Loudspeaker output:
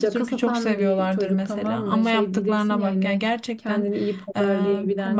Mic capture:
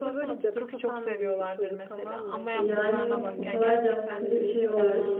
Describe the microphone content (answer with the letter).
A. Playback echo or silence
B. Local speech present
B